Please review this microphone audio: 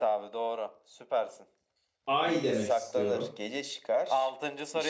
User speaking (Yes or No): Yes